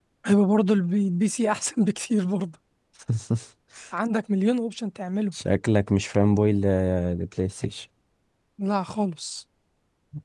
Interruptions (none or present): none